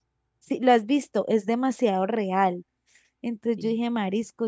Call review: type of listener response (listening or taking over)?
listening